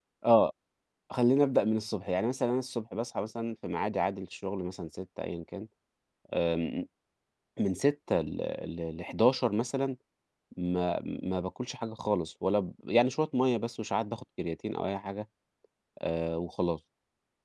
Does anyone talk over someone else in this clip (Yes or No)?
No